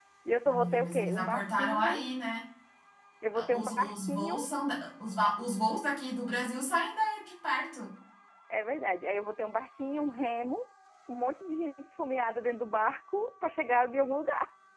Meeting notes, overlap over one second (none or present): present